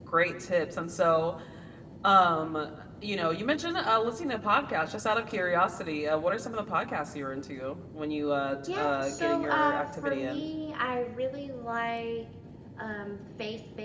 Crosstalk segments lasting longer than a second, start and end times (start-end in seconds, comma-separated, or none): 8.7-10.4